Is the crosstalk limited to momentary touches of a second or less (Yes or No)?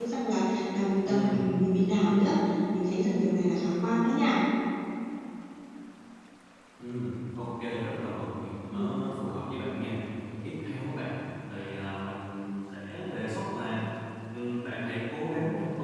Yes